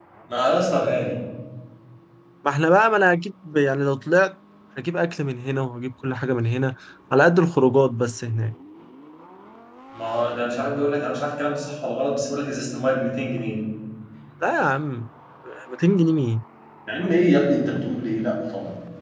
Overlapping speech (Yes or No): No